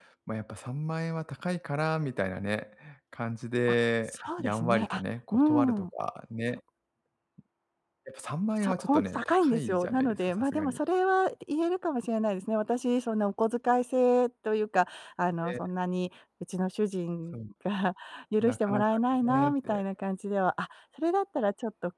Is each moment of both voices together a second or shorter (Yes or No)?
No